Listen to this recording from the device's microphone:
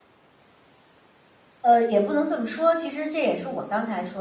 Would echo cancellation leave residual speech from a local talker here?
Yes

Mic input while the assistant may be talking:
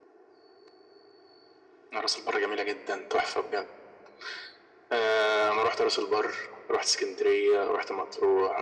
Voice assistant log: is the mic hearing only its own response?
Yes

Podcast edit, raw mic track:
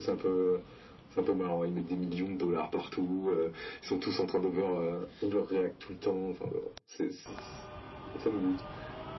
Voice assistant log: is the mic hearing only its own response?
Yes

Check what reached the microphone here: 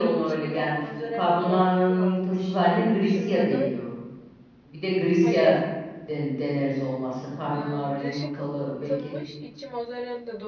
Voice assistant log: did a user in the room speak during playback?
Yes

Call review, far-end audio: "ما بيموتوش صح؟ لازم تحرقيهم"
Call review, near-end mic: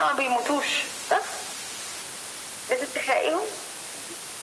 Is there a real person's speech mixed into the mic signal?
No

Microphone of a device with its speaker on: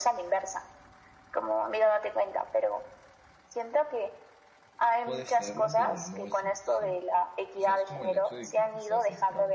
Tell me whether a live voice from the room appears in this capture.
Yes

